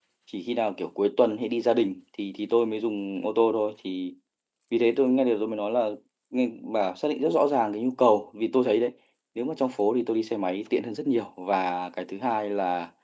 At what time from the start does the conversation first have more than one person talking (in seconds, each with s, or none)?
none